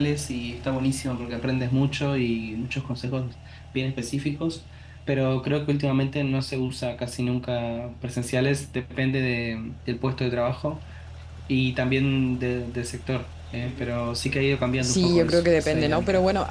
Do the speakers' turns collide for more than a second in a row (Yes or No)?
Yes